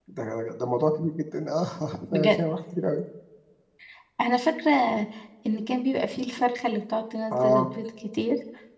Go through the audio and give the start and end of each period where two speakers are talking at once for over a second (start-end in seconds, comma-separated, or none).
none